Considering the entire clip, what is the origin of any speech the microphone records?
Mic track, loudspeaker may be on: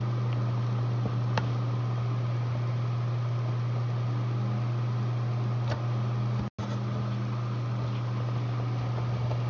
neither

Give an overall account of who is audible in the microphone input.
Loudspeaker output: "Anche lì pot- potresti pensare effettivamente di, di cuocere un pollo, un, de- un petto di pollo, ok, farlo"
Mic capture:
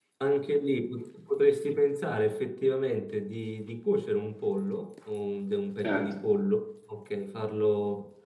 both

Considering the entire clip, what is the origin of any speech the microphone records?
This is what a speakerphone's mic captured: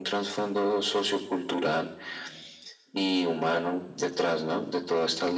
echo only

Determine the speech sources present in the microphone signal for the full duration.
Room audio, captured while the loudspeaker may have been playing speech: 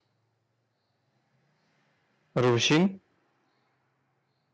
user only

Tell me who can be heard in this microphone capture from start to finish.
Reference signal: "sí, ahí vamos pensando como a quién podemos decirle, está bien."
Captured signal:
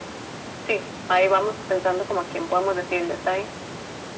echo only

